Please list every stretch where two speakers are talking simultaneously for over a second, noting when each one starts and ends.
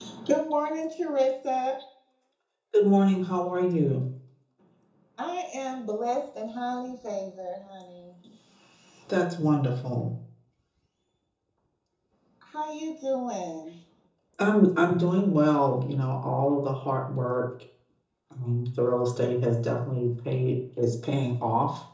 none

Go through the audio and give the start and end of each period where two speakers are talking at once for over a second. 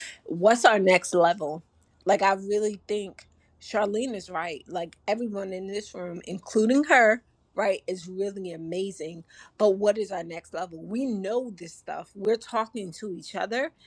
none

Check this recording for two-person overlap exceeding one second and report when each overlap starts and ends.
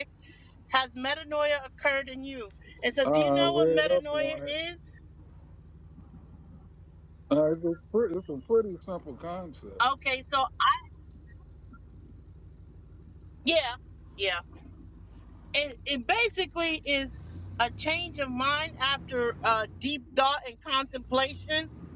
3.0-4.5

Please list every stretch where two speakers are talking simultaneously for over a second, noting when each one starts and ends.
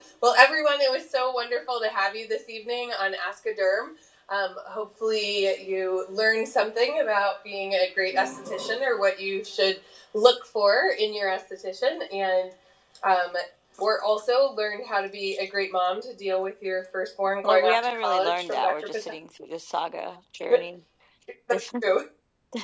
17.4-19.1

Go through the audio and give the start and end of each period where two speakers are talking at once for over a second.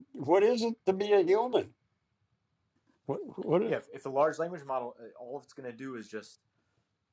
none

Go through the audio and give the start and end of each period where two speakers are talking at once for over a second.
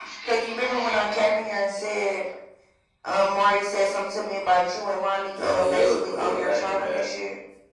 5.4-7.1

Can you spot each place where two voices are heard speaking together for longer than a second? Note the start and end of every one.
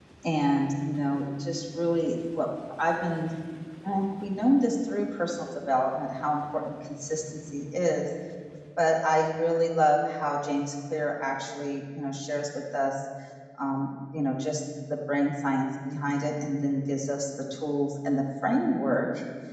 none

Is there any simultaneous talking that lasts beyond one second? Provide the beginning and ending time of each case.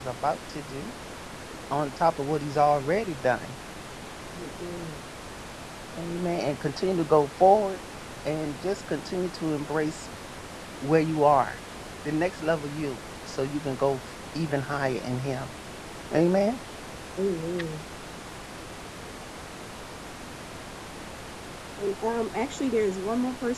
none

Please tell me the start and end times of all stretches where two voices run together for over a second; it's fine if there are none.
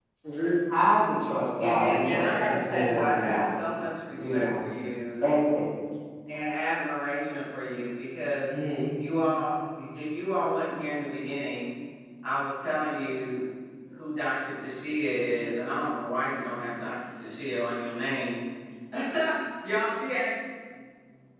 1.6-3.5

